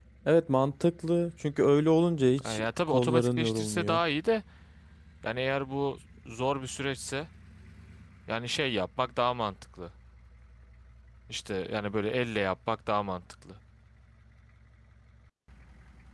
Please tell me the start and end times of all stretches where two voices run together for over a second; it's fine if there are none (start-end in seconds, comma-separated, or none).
2.4-4.0